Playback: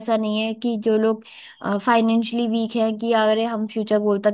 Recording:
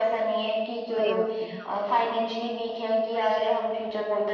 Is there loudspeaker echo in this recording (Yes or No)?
Yes